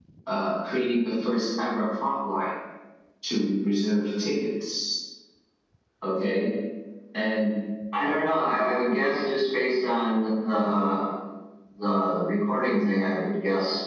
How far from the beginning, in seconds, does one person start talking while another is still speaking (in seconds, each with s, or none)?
none